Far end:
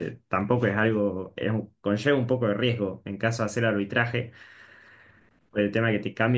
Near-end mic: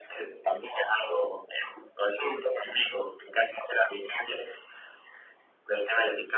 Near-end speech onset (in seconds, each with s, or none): none